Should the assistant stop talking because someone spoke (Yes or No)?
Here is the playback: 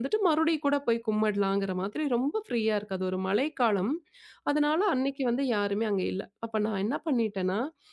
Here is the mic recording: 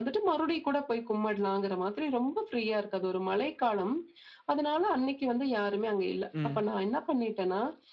Yes